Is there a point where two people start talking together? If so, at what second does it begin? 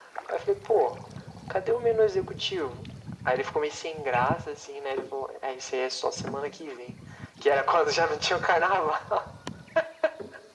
none

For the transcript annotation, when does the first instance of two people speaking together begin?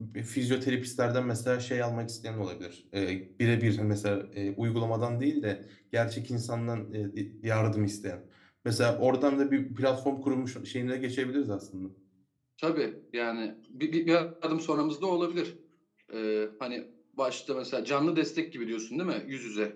none

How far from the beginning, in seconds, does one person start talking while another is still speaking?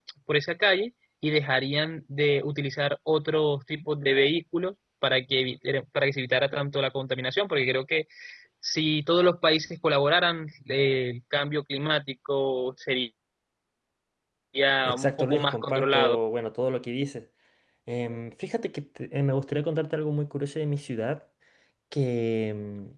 15 s

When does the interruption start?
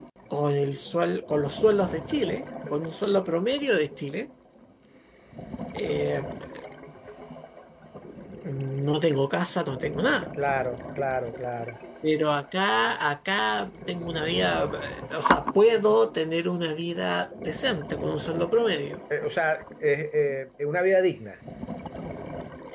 none

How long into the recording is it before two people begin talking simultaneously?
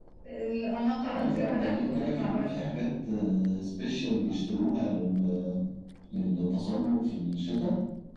1 s

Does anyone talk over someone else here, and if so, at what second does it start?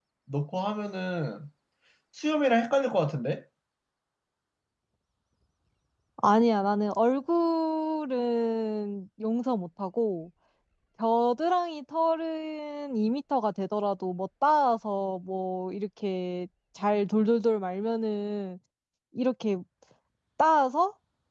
none

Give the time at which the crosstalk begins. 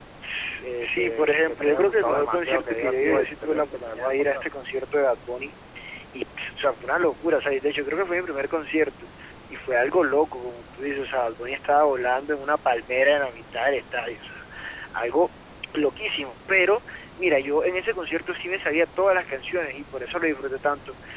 1 s

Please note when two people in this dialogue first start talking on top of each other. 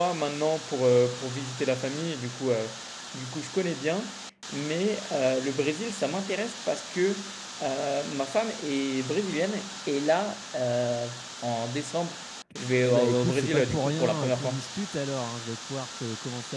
13 s

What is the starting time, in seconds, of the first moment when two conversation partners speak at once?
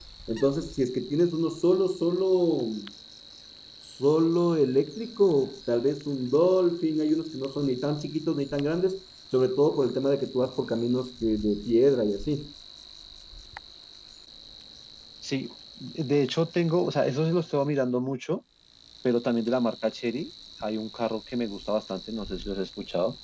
none

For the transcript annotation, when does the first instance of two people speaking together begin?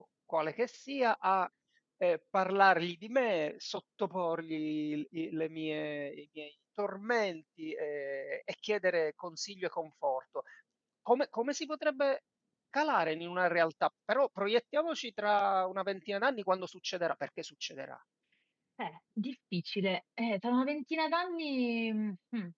none

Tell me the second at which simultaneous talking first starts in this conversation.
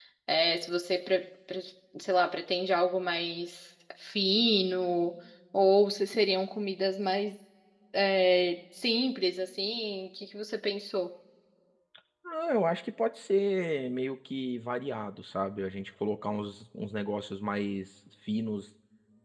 none

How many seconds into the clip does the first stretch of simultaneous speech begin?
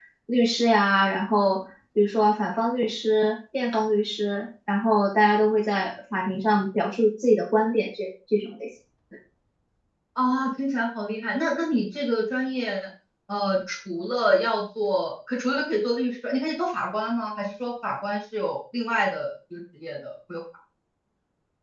none

